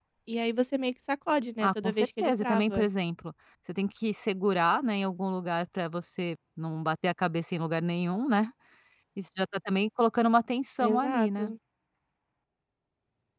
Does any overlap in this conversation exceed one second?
Yes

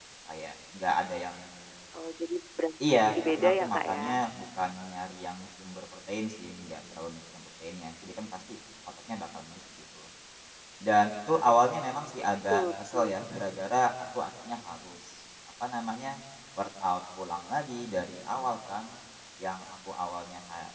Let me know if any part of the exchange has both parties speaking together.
Yes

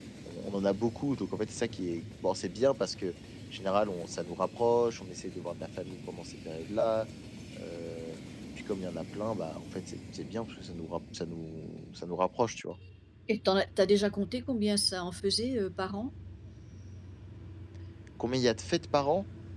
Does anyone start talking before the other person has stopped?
No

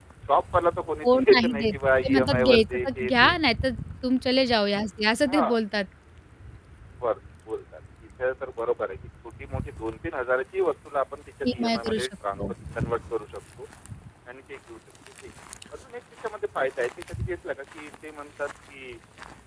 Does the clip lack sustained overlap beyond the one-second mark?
No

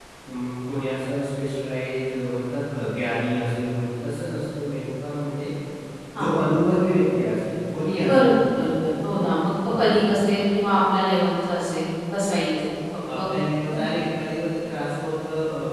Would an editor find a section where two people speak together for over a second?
No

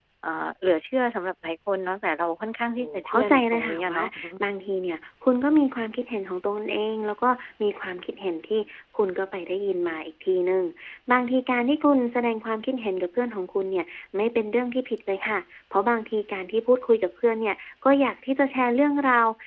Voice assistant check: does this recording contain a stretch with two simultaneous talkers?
Yes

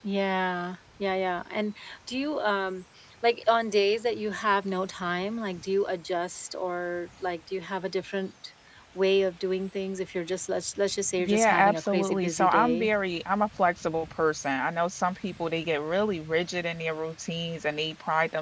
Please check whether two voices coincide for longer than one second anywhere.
Yes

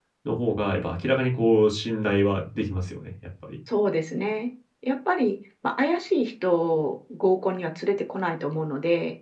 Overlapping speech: No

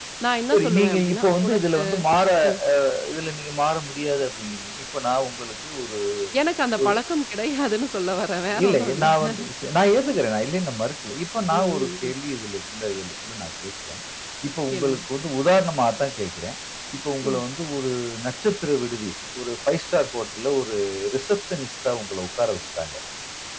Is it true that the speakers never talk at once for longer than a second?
No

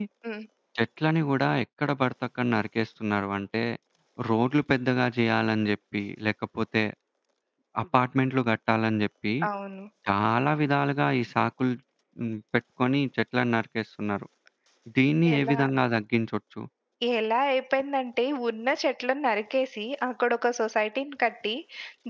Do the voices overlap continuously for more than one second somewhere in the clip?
No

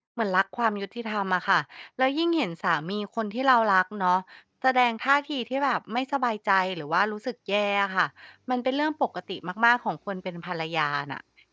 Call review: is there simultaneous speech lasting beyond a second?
No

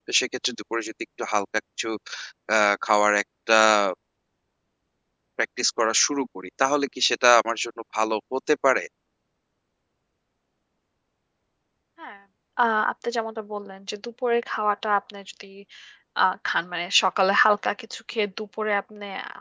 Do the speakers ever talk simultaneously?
No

